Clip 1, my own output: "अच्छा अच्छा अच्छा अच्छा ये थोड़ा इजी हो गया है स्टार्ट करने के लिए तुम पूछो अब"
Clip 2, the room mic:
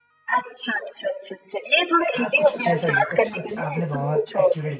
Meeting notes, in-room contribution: present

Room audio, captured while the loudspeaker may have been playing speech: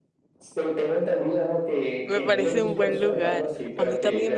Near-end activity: present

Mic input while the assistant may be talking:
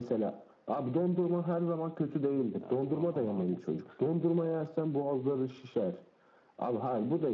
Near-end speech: present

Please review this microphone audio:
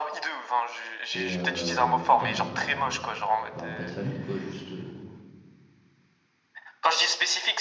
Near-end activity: present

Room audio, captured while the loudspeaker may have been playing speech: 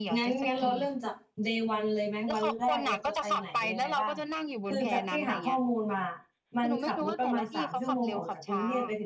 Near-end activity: present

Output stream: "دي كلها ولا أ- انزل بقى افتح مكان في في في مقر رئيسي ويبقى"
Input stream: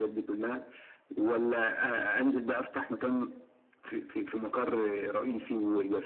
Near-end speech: none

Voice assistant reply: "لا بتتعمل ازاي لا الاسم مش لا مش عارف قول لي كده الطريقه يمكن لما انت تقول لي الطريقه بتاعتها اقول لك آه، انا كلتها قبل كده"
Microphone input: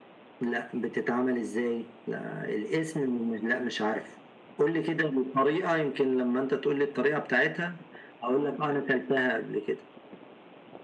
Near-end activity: none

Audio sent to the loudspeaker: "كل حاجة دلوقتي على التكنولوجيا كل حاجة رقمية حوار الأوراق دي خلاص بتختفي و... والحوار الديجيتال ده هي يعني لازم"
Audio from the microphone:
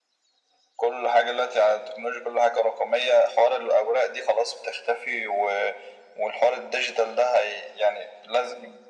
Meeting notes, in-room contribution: none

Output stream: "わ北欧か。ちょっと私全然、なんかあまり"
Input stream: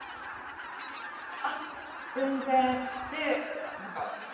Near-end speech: present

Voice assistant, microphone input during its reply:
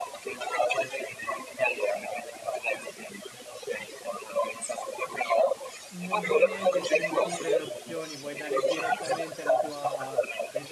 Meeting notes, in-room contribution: present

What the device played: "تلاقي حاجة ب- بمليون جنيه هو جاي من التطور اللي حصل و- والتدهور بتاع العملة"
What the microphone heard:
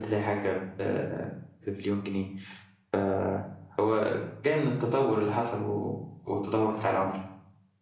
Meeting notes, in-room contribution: none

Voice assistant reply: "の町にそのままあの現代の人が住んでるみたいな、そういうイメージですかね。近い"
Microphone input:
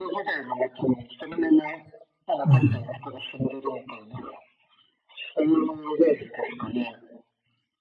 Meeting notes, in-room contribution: present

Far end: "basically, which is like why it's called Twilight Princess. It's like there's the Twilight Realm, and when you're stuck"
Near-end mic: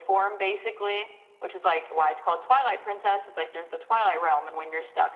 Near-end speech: none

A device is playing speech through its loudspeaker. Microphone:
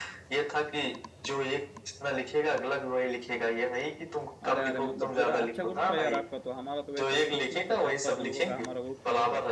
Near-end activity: present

